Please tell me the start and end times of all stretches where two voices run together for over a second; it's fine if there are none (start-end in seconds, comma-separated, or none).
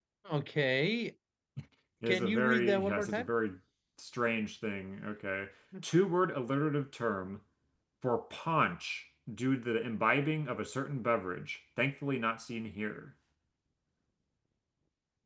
2.1-3.3